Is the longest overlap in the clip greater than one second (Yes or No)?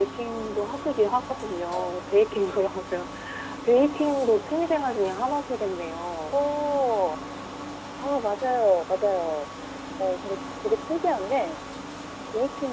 No